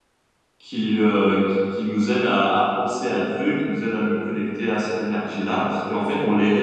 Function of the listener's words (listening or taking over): listening